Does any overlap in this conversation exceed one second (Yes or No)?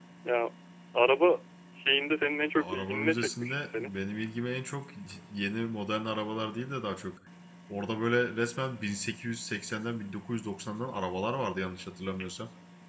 Yes